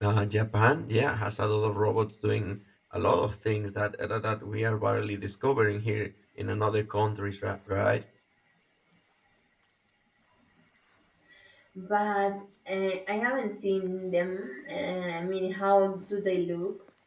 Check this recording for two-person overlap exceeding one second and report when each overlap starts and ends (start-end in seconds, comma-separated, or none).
none